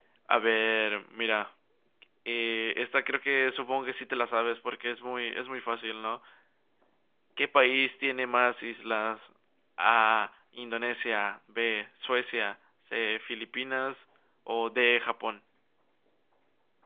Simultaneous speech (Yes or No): No